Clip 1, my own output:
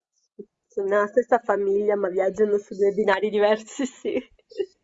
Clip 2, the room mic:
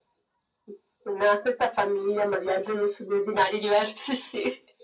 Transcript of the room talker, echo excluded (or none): none